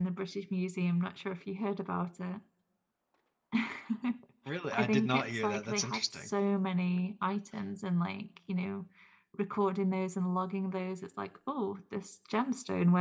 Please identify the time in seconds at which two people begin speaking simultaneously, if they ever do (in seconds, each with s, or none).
4.7 s